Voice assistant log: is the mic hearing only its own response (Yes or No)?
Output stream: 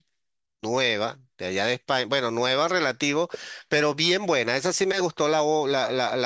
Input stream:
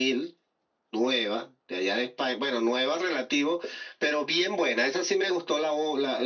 Yes